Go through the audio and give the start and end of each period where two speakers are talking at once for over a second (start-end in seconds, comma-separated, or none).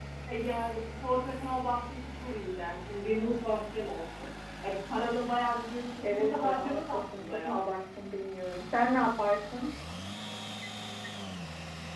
6.0-7.7